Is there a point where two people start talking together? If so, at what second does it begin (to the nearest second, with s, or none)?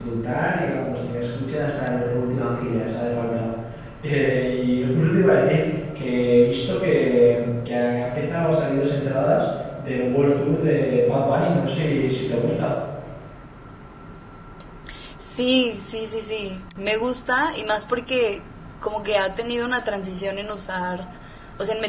none